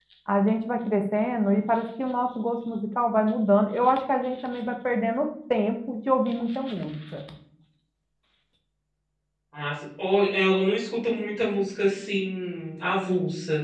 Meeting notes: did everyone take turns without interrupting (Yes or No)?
Yes